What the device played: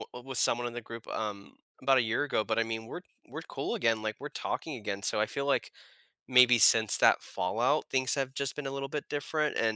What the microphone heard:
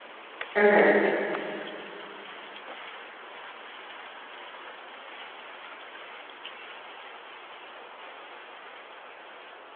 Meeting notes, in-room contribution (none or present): present